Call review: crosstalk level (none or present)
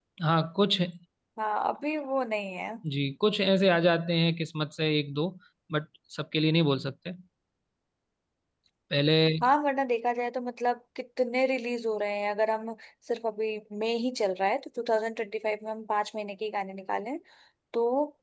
none